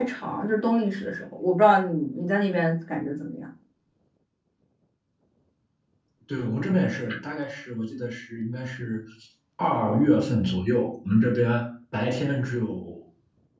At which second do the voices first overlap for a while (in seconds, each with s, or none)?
none